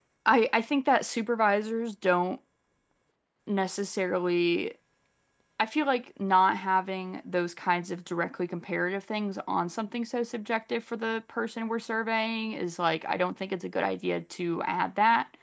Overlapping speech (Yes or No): No